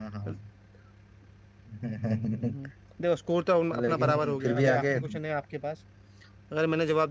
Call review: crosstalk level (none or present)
present